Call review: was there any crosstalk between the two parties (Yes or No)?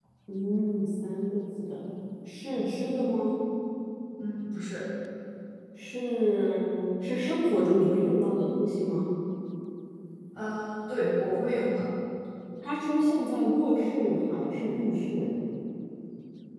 No